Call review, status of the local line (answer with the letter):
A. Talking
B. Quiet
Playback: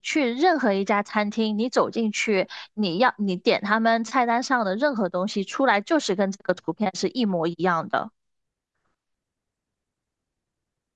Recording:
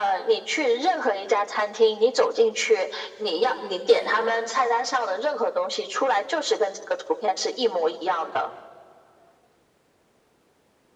B